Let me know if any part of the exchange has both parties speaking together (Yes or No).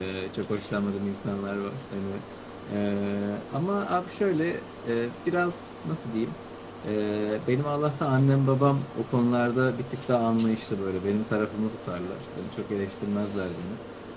No